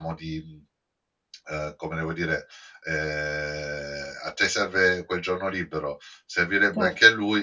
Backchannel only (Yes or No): Yes